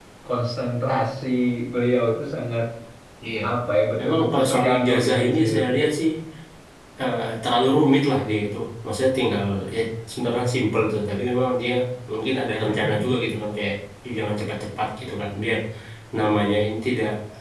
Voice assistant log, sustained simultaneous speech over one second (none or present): present